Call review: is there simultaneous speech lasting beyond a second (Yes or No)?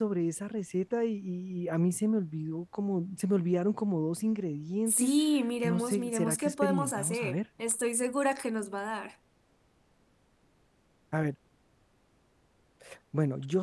Yes